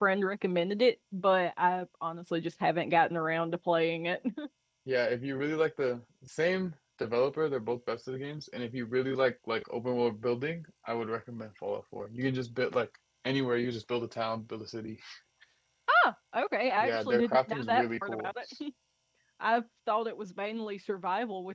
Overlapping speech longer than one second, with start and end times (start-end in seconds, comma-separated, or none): 16.8-18.3